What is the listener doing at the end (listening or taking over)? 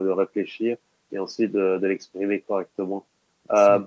listening